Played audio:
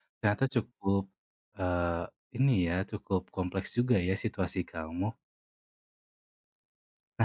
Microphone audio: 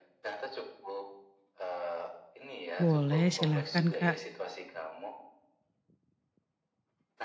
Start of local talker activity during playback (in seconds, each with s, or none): 2.8 s